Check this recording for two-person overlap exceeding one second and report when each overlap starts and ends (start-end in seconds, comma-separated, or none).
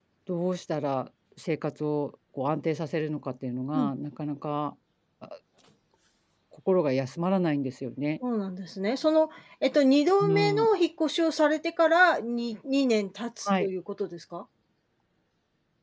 none